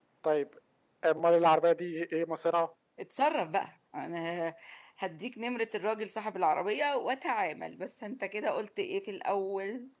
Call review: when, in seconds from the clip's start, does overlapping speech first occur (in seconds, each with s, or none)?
none